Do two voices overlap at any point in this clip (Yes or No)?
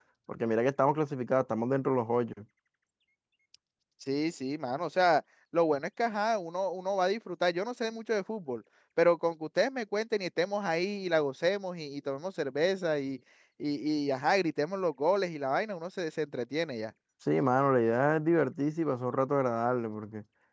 No